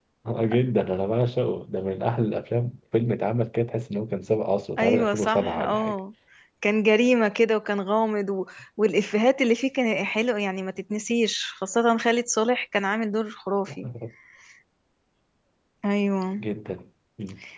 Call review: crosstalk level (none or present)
present